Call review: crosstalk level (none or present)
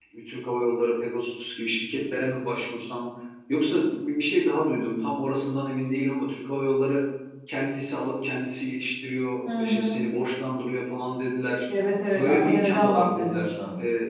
present